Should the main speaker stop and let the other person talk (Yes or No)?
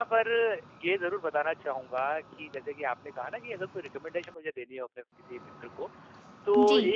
No